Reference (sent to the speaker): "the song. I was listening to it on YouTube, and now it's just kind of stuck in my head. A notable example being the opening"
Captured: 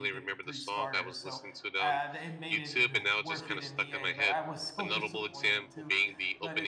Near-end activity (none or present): present